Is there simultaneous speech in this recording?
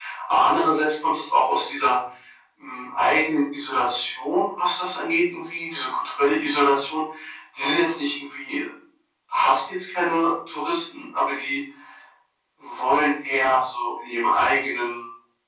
No

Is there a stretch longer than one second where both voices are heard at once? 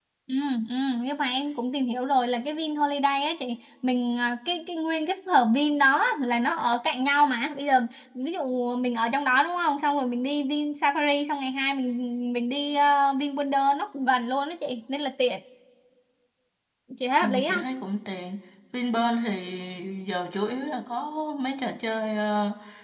No

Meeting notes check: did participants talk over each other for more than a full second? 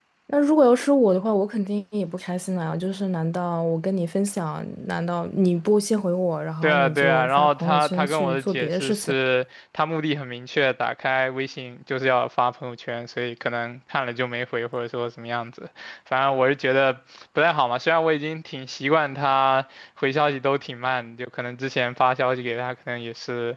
Yes, from 6.6 s

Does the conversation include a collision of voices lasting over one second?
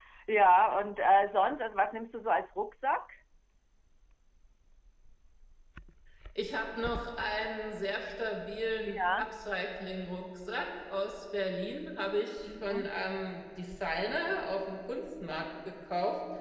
No

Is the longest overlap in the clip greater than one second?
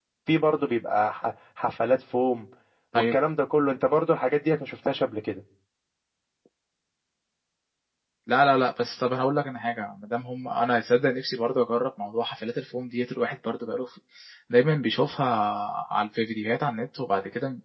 No

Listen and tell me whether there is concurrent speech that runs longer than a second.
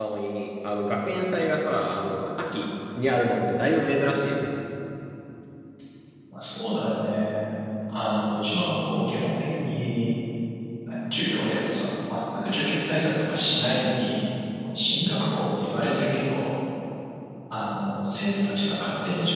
No

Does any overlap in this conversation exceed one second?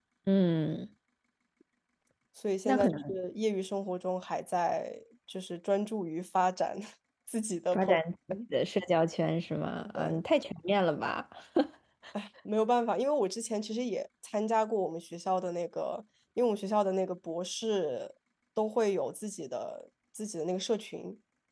No

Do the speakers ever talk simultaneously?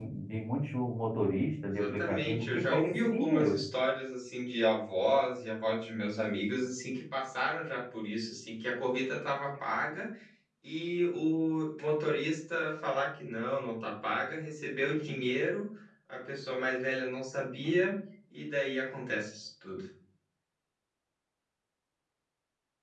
Yes, from 1.6 s

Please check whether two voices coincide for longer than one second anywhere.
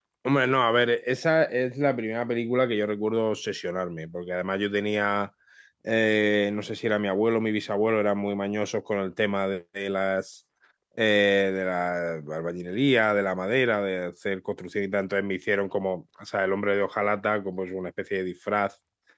No

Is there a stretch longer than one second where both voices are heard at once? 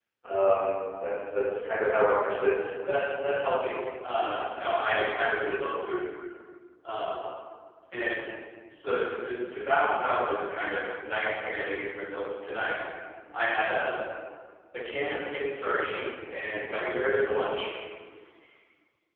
No

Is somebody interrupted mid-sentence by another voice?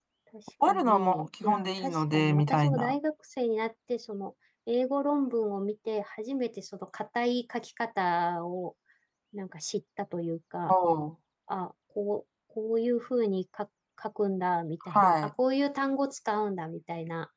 Yes, from 0.7 s

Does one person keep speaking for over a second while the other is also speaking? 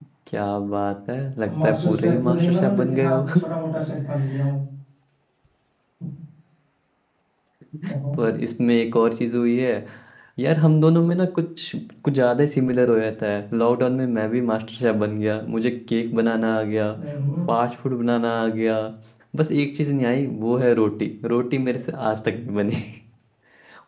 Yes, from 1.5 s

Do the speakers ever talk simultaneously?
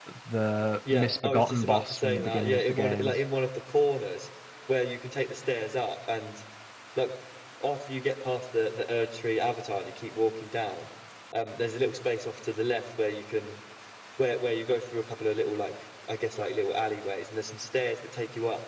Yes, from 0.9 s

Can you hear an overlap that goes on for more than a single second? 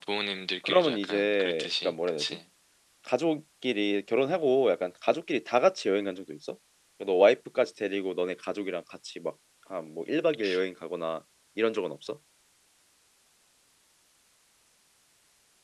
Yes, from 0.6 s

